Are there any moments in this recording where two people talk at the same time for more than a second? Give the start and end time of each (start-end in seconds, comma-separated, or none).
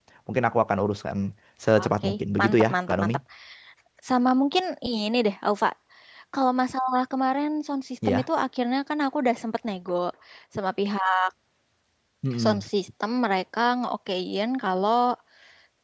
1.8-3.1